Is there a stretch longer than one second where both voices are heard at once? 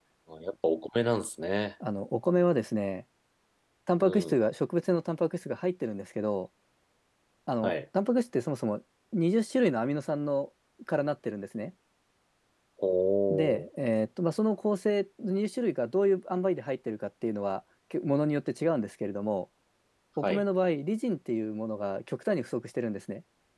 No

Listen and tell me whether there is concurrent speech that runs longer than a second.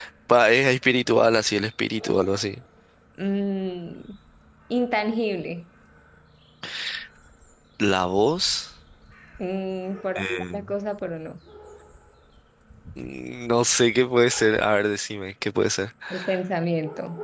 No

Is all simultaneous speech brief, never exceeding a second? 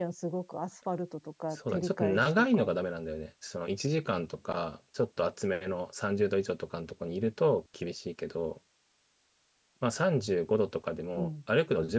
No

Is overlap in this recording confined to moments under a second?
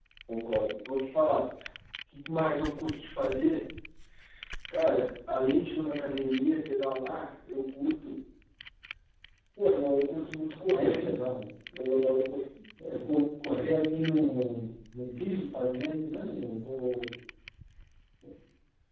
Yes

